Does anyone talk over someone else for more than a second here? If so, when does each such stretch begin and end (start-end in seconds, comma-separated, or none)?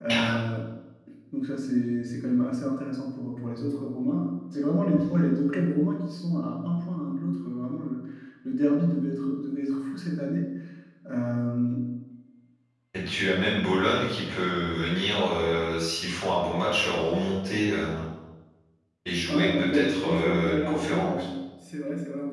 19.3-21.2